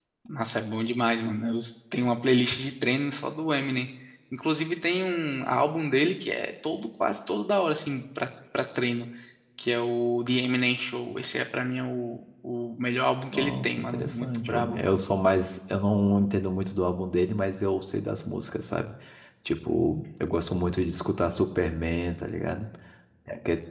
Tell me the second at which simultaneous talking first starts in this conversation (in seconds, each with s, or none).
13.3 s